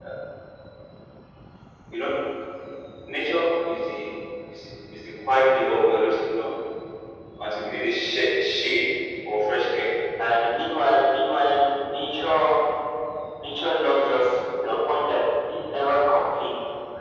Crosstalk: none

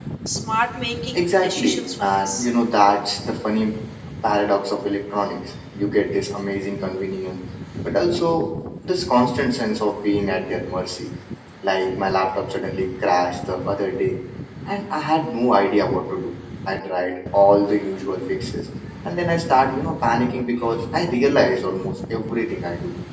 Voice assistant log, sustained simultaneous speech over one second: present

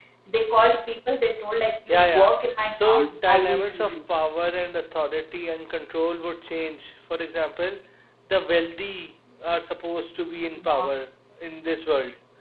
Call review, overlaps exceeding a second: present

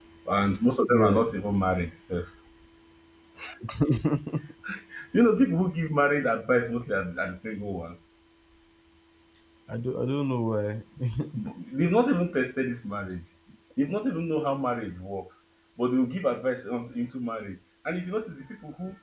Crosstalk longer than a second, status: none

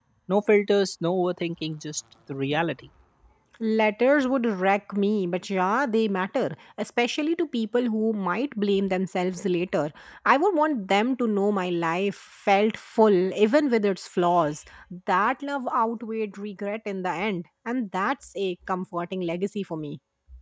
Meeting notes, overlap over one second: none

